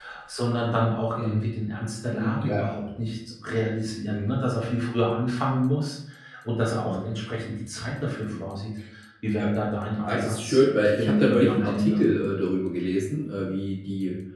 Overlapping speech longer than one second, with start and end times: 10.0-12.0

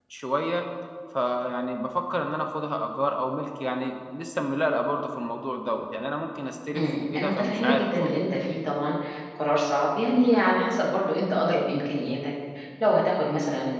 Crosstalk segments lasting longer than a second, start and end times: 6.8-8.1

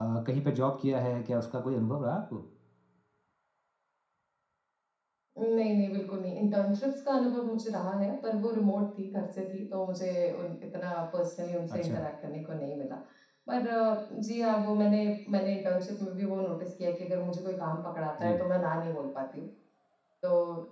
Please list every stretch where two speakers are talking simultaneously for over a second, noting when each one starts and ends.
none

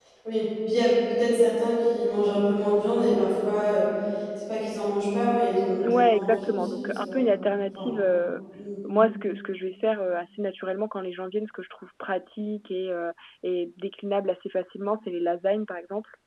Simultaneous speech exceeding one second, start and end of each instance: 5.9-7.2

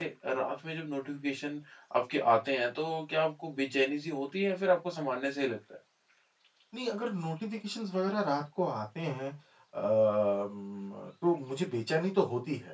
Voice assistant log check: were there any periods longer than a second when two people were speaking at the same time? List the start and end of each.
none

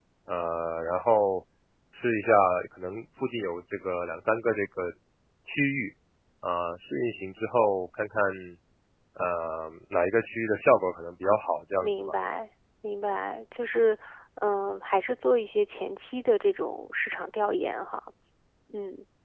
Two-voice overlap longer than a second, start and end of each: none

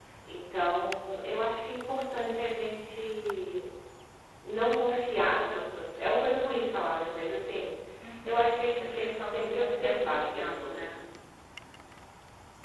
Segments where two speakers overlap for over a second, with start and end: 8.8-11.0

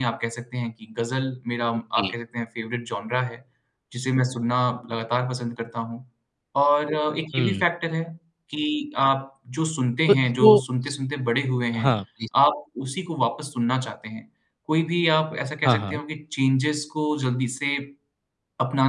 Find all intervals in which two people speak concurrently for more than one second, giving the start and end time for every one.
none

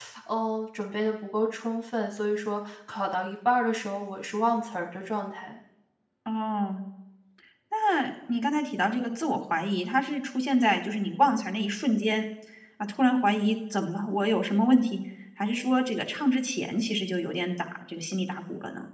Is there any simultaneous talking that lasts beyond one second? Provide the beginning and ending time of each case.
none

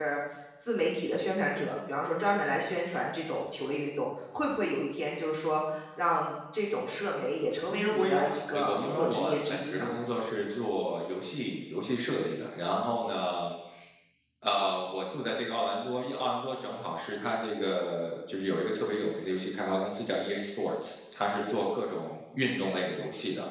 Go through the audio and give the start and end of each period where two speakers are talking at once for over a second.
7.7-9.9

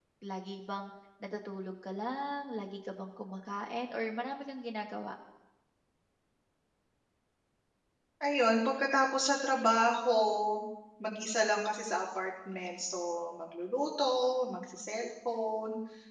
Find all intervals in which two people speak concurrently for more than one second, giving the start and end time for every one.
none

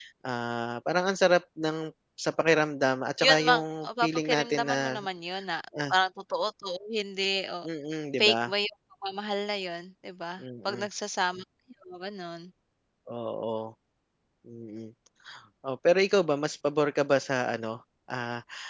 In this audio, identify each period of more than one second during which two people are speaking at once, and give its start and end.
3.2-5.0

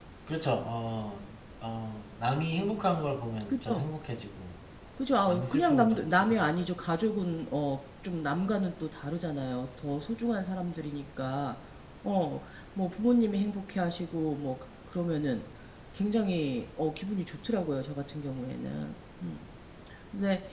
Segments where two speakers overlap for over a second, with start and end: 5.3-6.5

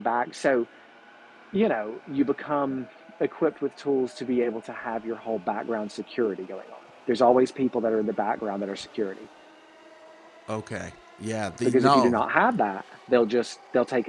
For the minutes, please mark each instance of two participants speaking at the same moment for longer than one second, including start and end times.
none

